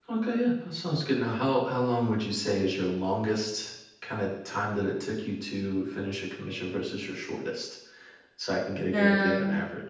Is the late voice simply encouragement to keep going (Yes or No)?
No